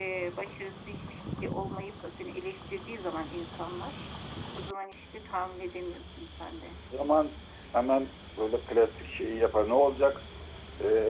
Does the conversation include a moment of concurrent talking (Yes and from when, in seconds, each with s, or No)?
No